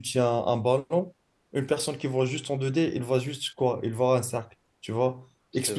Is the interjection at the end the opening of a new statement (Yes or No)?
No